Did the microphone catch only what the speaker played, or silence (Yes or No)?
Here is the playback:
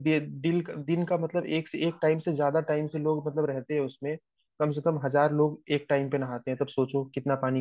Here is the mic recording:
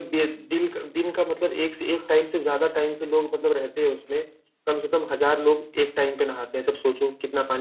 Yes